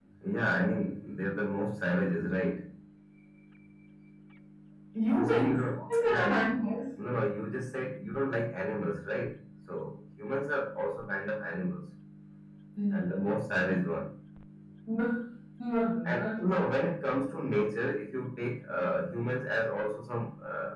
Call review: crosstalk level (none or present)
present